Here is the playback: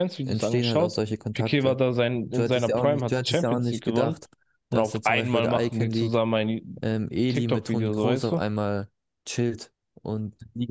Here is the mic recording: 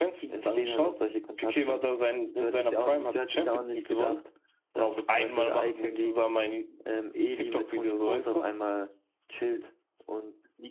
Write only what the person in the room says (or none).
none